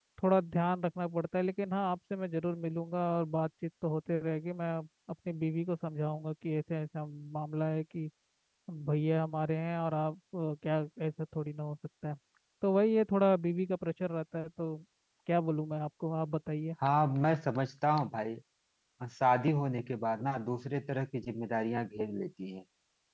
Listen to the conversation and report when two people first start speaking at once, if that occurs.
none

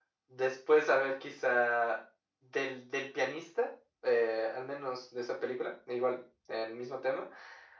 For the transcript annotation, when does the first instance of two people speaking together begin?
none

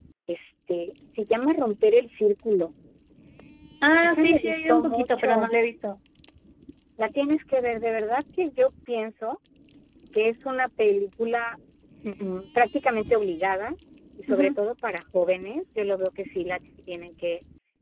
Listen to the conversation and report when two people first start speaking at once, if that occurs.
4.0 s

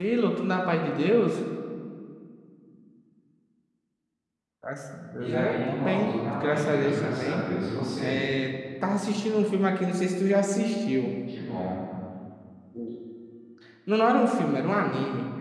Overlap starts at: 5.2 s

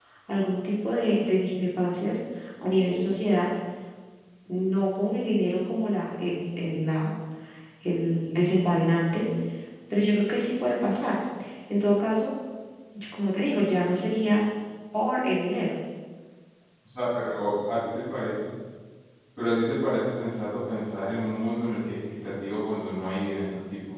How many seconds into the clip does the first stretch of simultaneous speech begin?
none

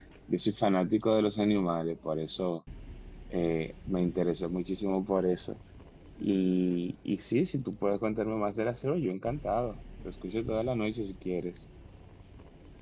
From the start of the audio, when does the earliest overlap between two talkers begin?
none

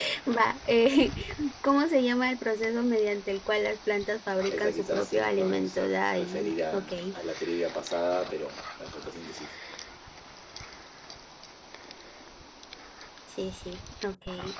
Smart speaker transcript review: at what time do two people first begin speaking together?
4.5 s

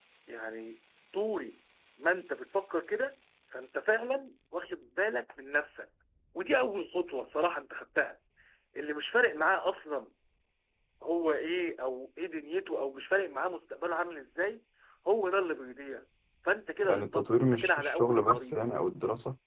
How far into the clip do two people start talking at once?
16.9 s

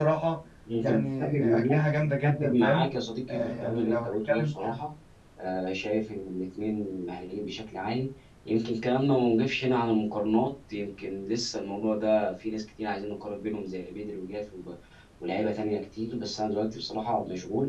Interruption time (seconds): 0.8 s

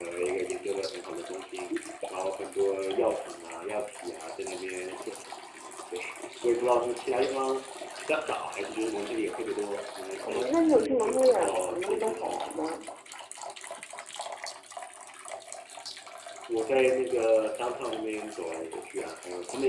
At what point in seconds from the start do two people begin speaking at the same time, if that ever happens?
10.2 s

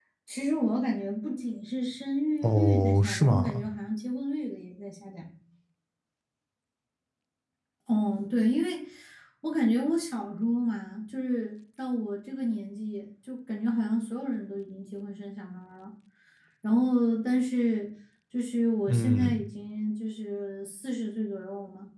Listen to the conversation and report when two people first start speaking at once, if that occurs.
2.4 s

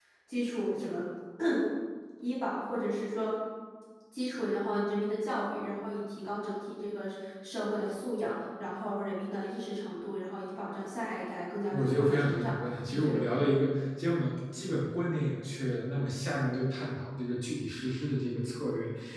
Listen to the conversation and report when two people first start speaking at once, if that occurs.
11.7 s

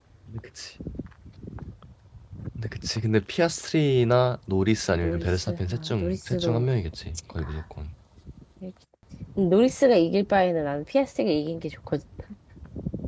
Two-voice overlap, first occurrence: 5.0 s

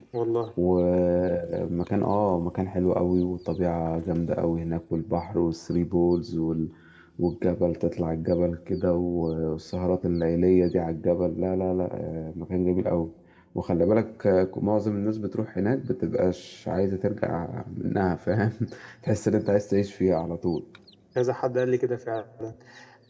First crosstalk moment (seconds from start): none

